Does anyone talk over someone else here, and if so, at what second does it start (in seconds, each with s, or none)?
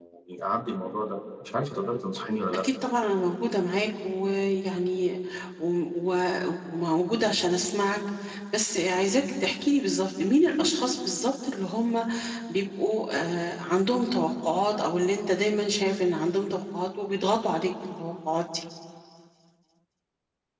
none